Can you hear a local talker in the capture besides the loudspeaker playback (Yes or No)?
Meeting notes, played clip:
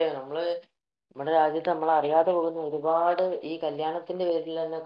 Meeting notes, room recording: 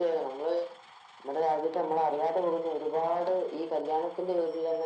No